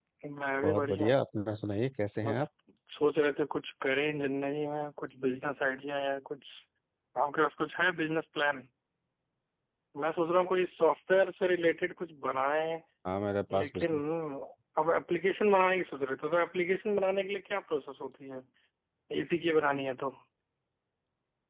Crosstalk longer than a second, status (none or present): none